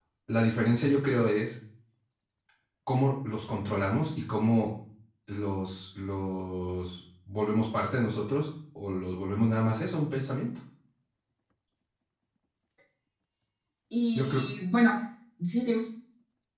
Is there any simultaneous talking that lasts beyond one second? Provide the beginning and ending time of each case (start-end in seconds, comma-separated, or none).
none